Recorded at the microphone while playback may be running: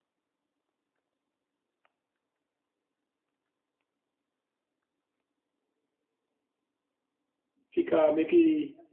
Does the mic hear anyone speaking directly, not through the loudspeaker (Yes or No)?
Yes